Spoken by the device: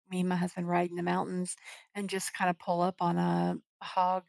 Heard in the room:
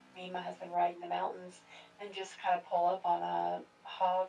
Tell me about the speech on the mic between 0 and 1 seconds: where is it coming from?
echo only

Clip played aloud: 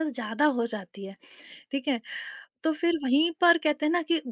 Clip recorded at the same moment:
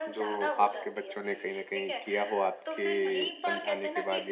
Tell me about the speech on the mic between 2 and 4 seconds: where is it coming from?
both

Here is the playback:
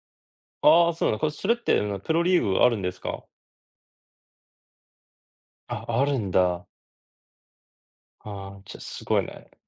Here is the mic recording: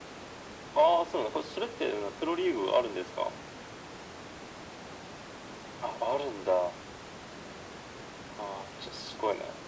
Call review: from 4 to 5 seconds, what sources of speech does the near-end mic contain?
neither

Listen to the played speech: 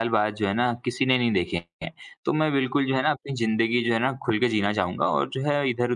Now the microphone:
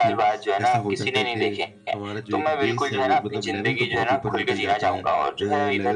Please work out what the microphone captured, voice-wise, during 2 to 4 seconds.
both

